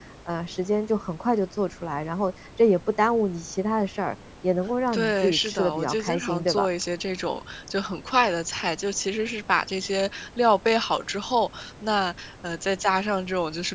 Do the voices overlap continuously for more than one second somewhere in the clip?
Yes, from 4.9 s

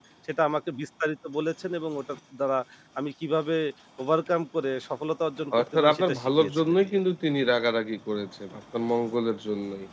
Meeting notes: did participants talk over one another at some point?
Yes, from 5.5 s

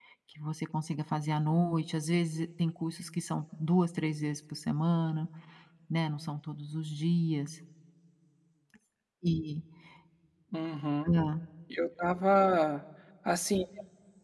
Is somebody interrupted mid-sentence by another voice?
No

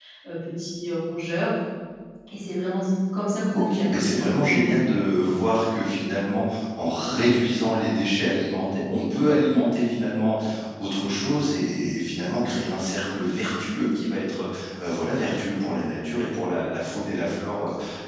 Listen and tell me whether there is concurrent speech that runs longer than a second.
Yes, from 3.5 s

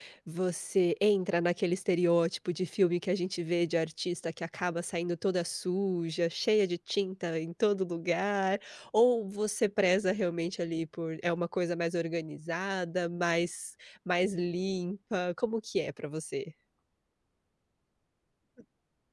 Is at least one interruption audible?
No

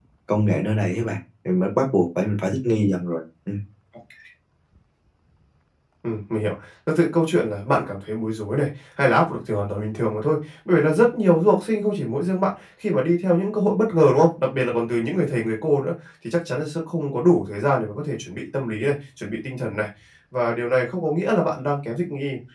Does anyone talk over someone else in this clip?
No

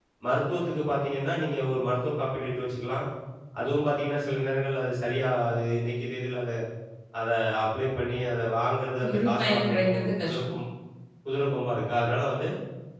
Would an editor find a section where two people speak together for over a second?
Yes, from 9.0 s

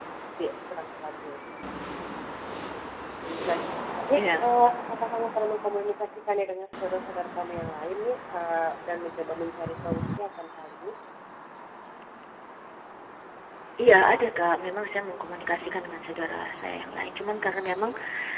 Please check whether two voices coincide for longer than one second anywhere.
No

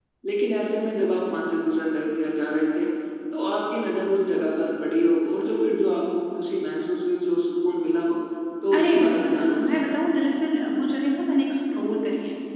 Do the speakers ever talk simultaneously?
Yes, from 8.7 s

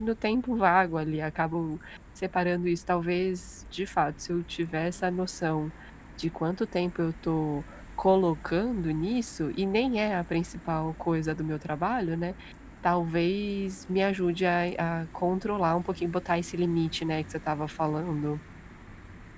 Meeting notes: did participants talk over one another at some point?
No

